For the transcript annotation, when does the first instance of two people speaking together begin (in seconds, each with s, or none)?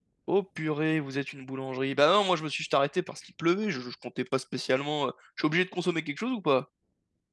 none